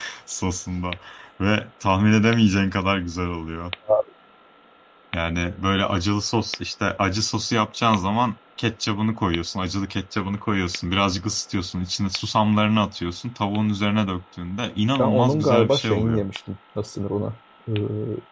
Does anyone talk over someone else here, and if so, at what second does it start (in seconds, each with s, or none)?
15.0 s